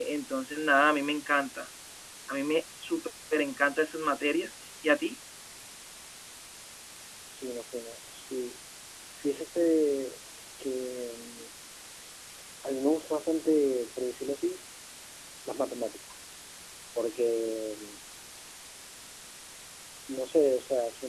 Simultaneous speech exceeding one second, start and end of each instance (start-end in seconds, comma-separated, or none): none